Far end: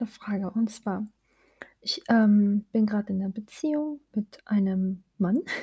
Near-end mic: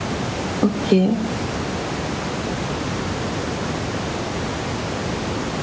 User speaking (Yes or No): Yes